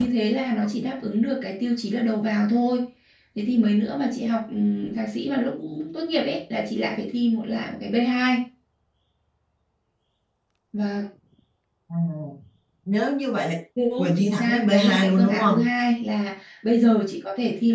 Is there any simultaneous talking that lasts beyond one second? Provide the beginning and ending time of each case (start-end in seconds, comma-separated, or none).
14.0-15.6